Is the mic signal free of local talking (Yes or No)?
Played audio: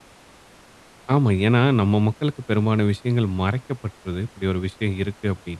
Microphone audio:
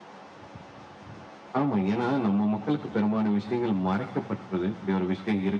Yes